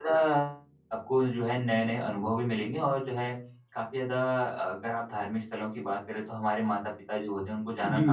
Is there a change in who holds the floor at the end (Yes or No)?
No